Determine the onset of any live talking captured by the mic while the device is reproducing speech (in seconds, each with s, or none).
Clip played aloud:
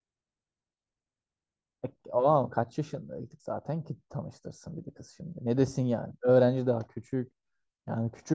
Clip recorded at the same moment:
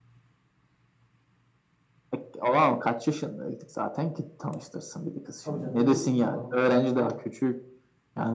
5.4 s